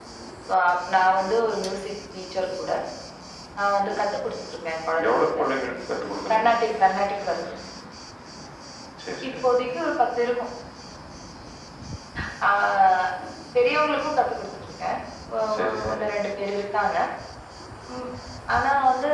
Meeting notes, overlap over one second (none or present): none